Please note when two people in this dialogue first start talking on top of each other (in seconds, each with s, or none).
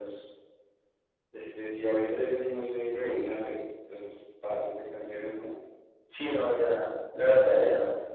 none